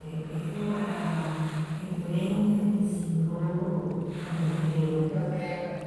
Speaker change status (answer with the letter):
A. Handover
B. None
A